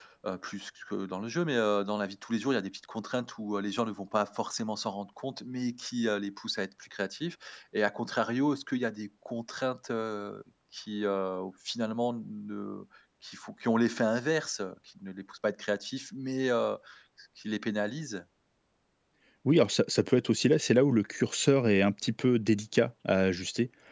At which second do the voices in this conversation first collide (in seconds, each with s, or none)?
none